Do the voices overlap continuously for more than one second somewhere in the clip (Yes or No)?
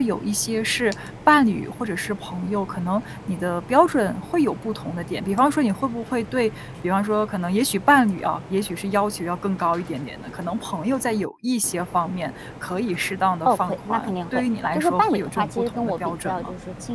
Yes